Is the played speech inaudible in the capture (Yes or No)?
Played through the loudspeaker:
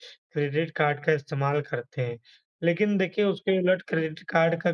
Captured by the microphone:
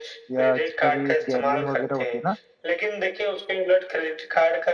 No